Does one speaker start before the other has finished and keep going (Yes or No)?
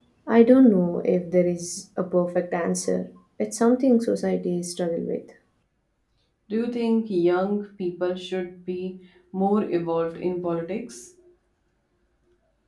No